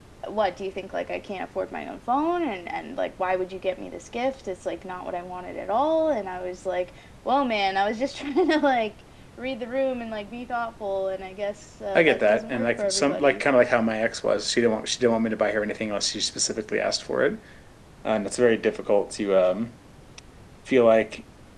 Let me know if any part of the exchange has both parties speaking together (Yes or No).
Yes